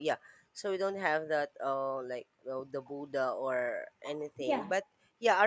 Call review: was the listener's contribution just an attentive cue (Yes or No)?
Yes